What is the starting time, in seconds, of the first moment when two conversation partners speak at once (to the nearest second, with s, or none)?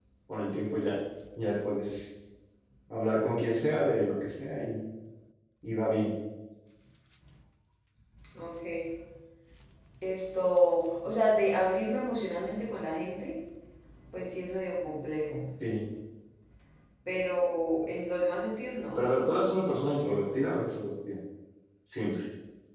none